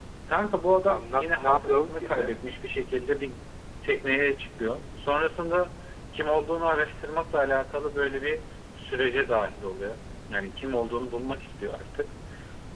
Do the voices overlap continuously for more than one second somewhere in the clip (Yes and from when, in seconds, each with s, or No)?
Yes, from 0.9 s